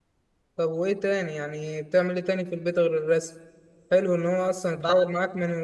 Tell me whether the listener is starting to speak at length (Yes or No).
No